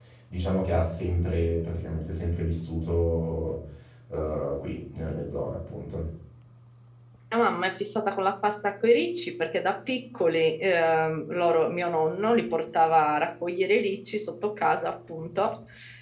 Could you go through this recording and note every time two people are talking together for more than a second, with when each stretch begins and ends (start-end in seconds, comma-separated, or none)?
none